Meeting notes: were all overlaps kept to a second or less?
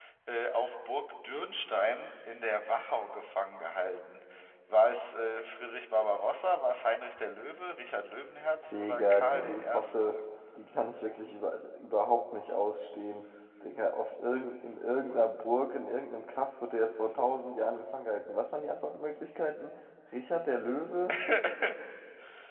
No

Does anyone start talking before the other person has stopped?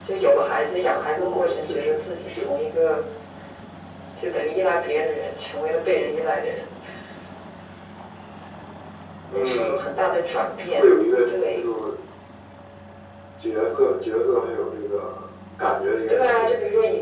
Yes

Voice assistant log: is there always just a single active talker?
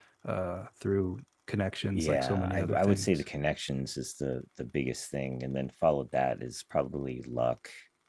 No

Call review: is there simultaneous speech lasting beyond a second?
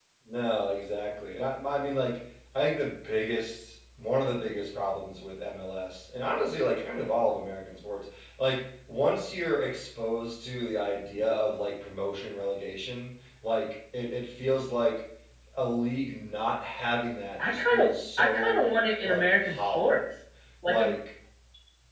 Yes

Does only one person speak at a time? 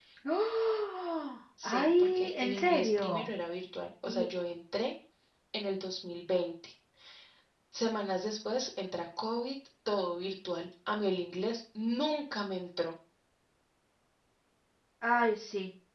No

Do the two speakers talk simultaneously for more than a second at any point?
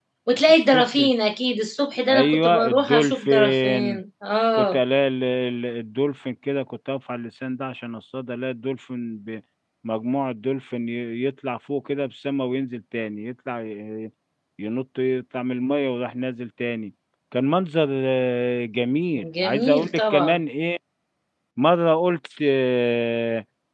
Yes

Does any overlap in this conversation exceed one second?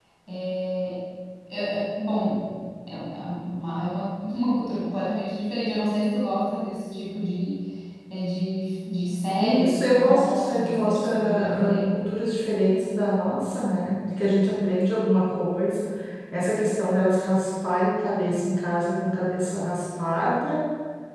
Yes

